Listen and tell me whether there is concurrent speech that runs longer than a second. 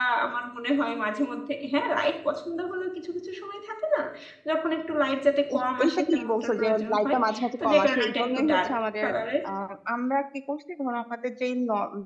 Yes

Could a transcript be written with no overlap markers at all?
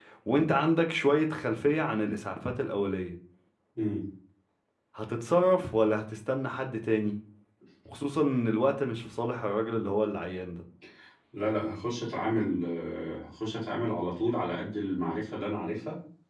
Yes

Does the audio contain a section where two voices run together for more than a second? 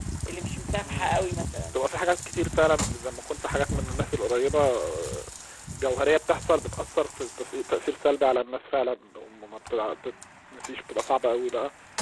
No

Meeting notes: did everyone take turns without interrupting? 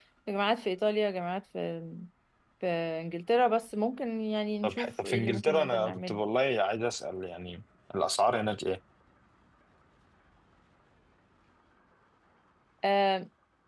No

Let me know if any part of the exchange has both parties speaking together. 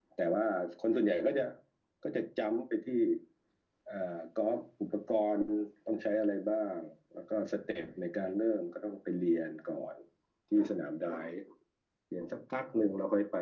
No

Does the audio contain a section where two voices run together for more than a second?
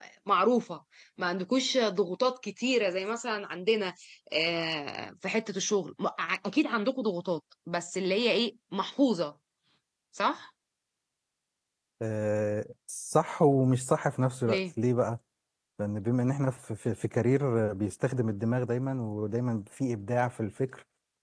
No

